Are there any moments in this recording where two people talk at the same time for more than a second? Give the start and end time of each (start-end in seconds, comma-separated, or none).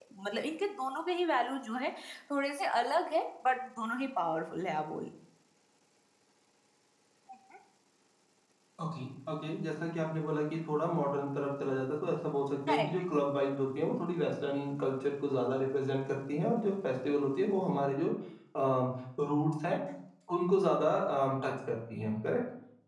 none